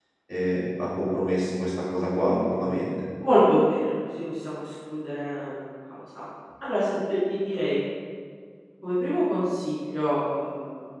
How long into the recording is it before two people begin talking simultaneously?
none

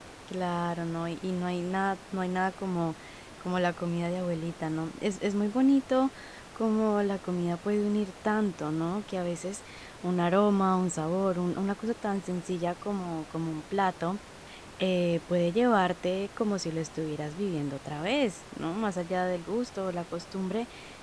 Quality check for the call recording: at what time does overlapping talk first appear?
none

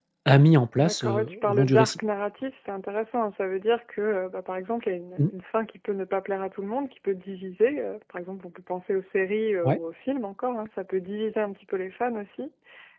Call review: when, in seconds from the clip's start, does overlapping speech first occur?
0.8 s

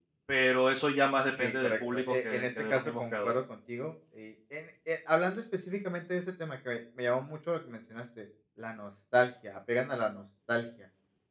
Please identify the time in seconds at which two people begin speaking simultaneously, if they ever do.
1.4 s

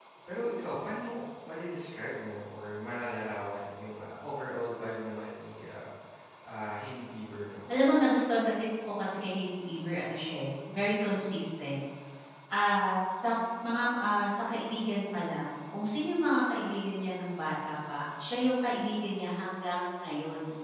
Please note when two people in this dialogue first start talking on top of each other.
none

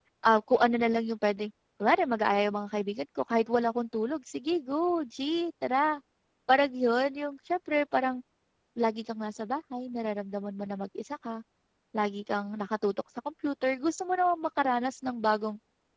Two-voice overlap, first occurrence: none

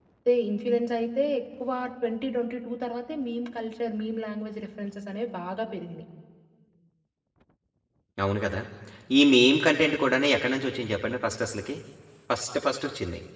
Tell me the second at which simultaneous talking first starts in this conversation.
none

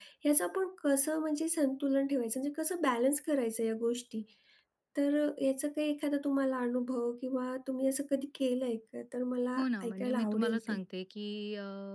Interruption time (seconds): 9.6 s

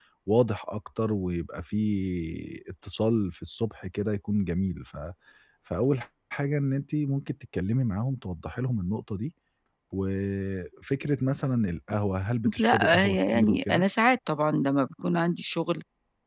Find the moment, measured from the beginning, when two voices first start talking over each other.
12.4 s

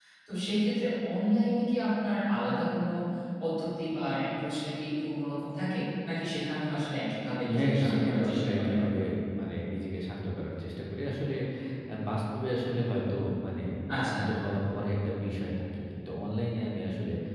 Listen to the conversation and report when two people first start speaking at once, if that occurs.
7.6 s

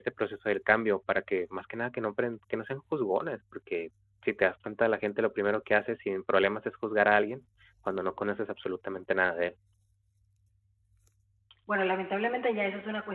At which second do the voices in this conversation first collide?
none

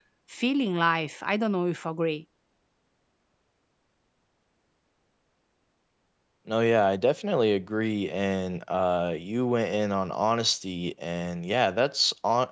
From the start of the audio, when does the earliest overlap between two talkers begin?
none

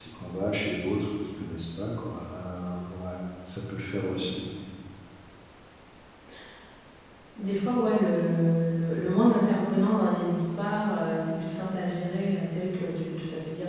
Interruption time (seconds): none

